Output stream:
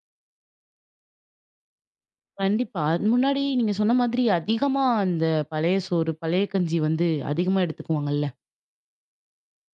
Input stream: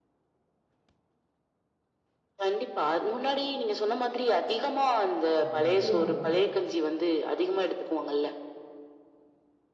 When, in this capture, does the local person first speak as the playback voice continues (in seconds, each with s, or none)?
5.4 s